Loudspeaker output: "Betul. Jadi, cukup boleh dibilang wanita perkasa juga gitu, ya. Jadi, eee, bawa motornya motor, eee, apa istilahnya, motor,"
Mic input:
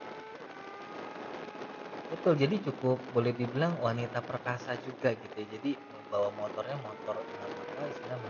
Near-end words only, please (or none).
none